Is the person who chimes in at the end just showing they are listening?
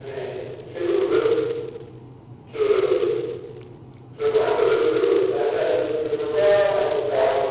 Yes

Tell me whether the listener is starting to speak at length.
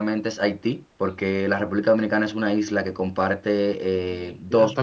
Yes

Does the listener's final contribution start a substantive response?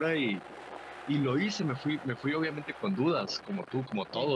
No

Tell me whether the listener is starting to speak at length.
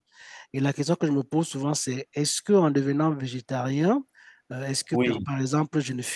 No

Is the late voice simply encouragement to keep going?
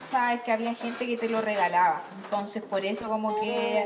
Yes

